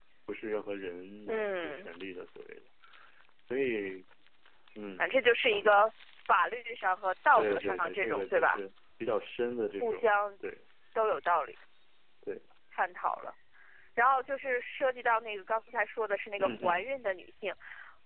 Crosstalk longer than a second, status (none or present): present